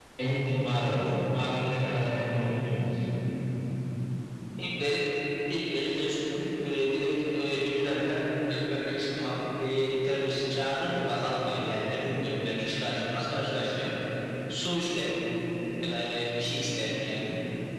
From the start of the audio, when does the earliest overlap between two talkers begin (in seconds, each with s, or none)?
none